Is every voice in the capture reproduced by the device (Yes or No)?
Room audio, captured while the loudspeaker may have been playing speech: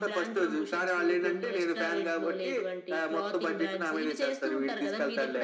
Yes